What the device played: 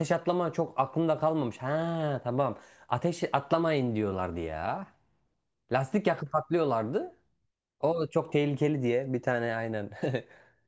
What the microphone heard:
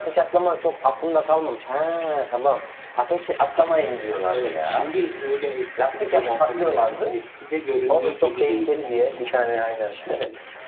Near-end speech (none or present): present